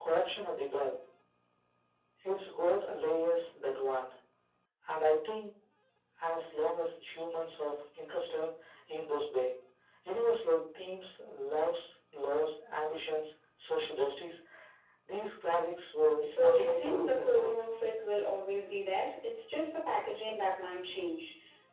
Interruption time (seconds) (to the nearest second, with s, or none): 16 s